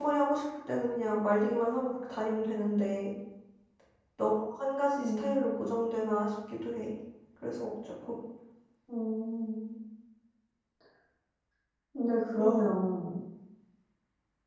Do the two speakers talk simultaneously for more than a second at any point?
No

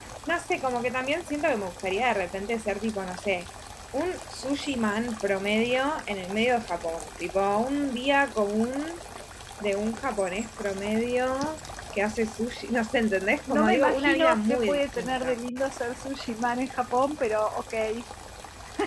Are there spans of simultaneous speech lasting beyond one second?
Yes, from 13.5 s

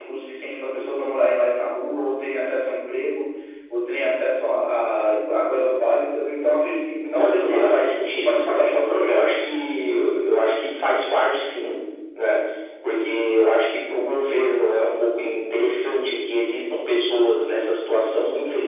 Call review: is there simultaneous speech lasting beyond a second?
Yes, from 7.2 s

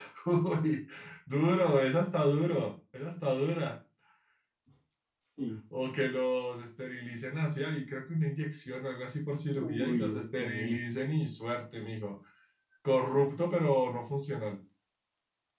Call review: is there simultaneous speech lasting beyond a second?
Yes, from 9.5 s

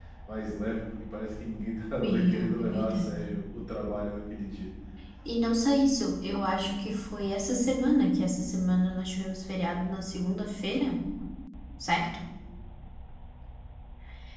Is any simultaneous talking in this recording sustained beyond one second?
Yes, from 2.0 s

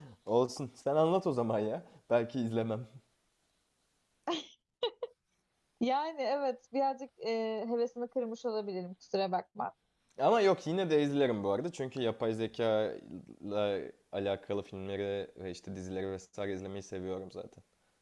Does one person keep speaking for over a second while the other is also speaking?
No

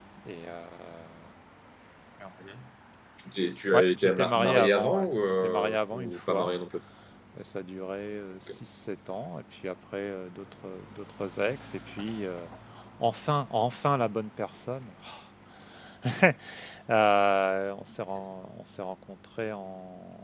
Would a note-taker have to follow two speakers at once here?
Yes, from 3.7 s

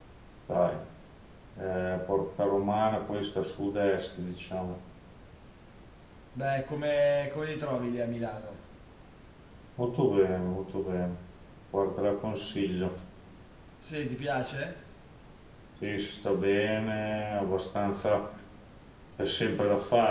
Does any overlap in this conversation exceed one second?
No

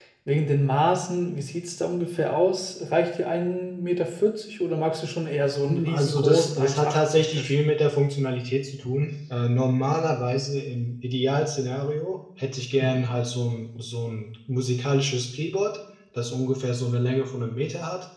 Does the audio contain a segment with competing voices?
Yes, from 5.7 s

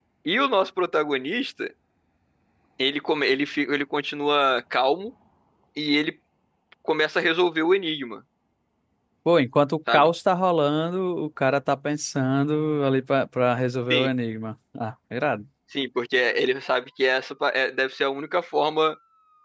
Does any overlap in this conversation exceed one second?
No

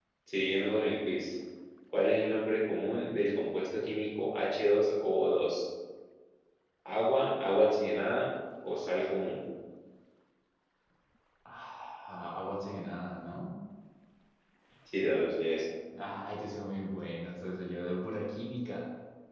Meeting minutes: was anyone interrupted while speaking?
No

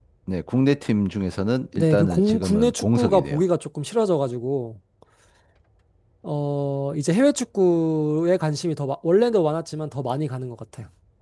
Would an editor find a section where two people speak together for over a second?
Yes, from 1.7 s

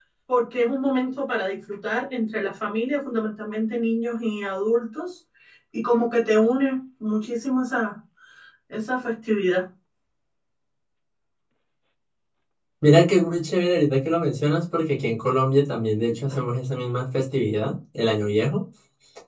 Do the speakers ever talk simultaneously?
No

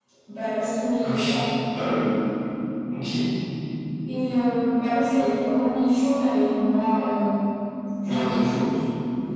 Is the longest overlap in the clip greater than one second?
No

